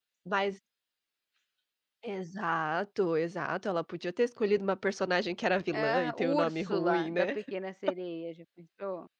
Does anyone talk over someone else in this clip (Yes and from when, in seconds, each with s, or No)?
Yes, from 5.7 s